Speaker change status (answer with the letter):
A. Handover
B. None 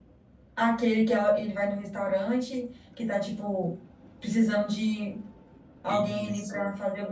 A